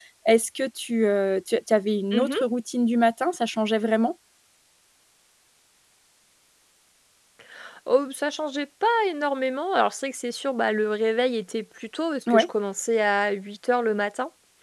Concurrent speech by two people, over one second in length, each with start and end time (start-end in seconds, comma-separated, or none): none